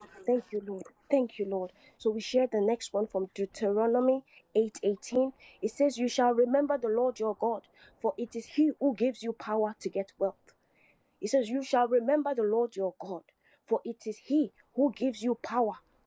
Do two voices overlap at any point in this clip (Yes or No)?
No